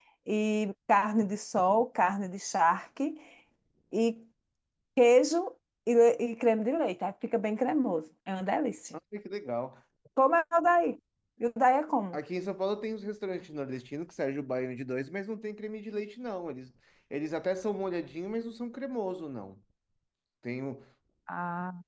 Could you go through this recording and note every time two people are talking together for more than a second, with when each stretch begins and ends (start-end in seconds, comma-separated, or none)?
none